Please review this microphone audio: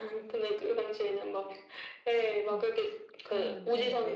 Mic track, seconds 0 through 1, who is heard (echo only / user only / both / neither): echo only